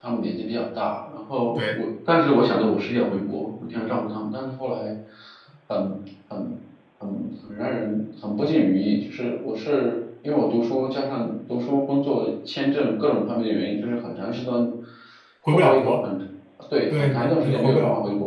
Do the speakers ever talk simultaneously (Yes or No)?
Yes